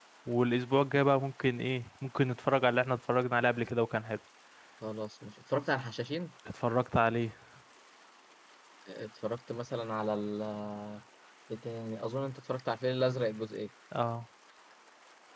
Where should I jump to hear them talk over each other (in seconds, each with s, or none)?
none